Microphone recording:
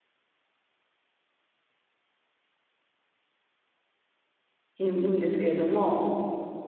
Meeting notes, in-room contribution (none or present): present